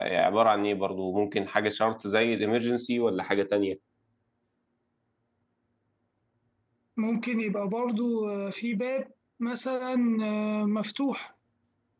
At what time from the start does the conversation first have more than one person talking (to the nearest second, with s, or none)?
none